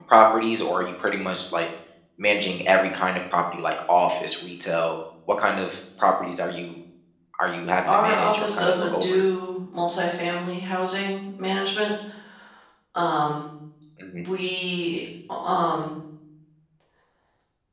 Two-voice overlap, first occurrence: 7.9 s

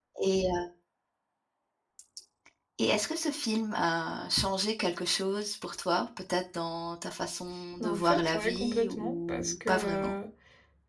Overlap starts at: 7.8 s

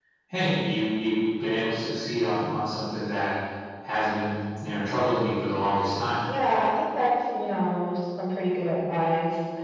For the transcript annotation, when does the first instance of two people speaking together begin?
none

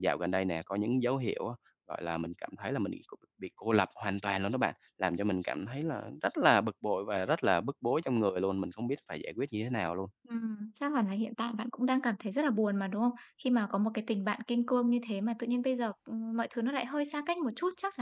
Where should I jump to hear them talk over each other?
none

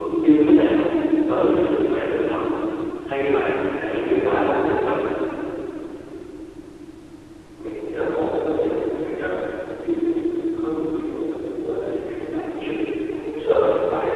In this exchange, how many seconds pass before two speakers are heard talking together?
none

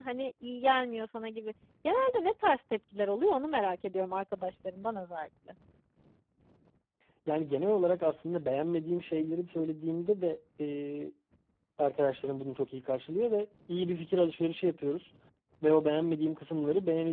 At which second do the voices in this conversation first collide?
none

